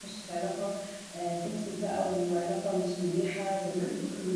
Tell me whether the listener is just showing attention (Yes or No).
No